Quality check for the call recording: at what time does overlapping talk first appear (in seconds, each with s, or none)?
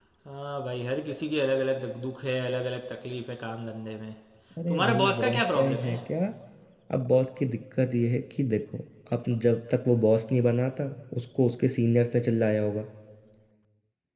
4.7 s